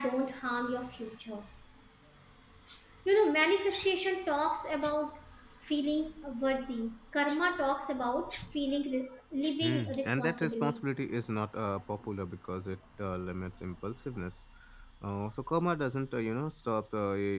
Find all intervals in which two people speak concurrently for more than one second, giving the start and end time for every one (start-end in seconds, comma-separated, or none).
9.6-10.8